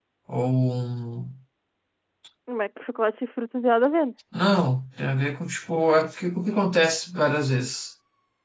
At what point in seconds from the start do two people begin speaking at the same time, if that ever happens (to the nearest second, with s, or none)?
none